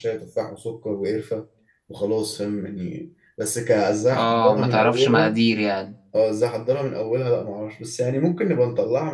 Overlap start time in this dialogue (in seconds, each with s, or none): 4.1 s